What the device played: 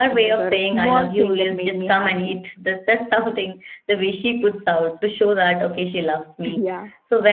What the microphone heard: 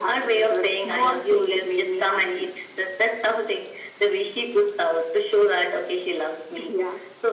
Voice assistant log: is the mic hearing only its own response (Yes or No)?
Yes